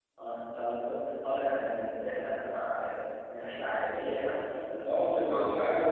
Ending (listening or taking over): taking over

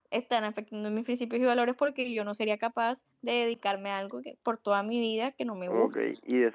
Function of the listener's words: taking over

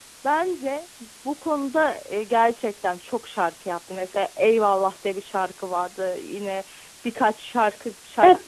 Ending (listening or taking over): taking over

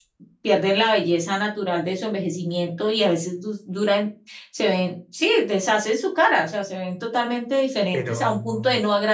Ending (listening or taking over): listening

